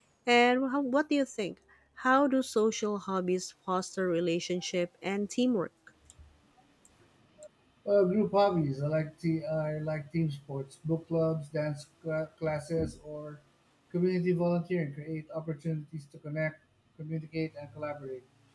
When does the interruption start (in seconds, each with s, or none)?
none